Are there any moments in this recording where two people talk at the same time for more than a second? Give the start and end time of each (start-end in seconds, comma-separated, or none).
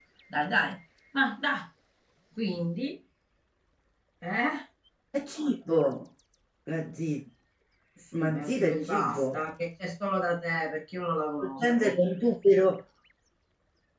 8.2-9.4